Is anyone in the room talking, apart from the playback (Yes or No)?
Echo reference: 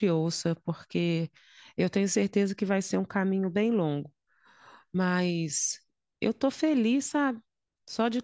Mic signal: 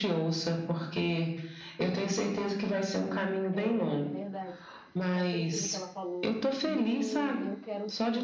Yes